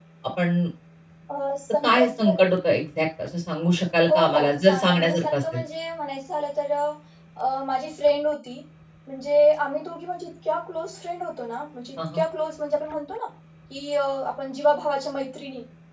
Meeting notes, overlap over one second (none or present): present